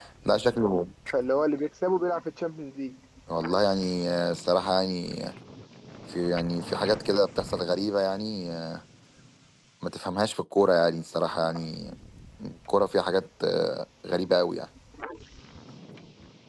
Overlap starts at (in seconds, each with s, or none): none